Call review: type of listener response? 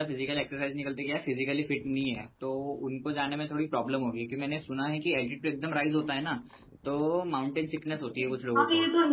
taking over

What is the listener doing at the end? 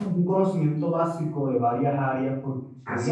listening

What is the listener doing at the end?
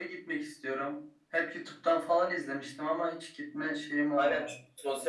taking over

